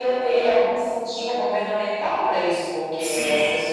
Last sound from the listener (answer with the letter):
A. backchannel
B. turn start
A